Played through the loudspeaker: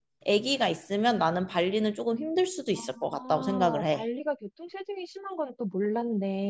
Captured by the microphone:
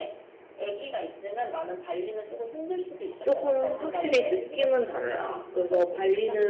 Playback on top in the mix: No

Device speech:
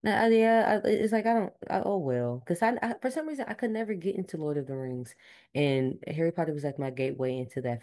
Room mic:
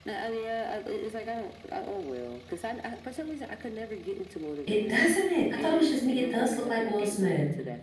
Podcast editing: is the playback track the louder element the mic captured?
No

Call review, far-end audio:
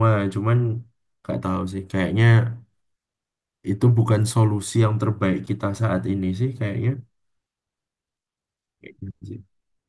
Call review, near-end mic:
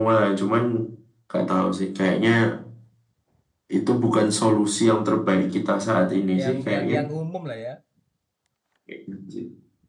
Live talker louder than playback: No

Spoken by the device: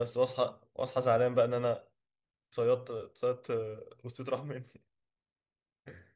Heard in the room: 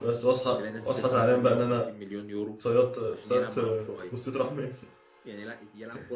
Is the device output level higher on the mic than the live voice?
Yes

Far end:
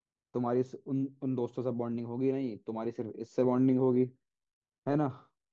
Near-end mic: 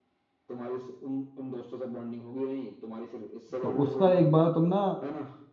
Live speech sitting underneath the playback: No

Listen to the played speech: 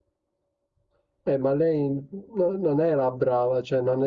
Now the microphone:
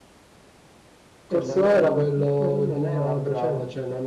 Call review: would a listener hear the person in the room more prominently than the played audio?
Yes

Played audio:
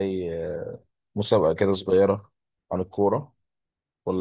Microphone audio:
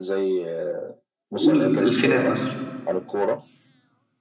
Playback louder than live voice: No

